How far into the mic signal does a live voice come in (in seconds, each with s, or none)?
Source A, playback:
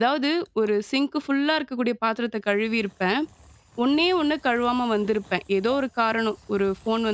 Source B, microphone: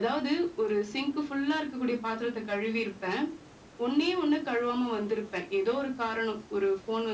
none